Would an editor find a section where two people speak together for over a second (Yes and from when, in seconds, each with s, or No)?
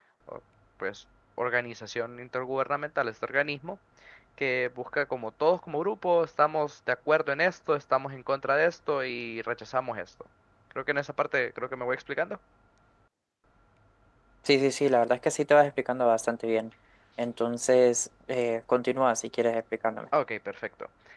No